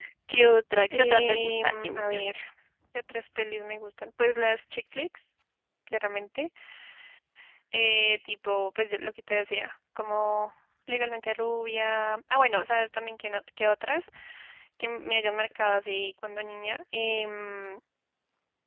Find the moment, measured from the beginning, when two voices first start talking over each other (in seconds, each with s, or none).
0.9 s